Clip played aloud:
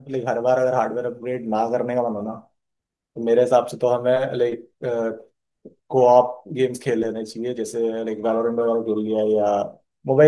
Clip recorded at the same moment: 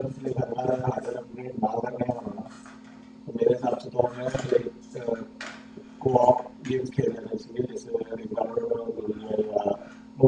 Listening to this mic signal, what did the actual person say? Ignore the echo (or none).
none